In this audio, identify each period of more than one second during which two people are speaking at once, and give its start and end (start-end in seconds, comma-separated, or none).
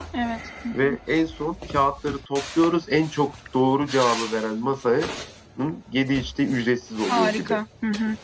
none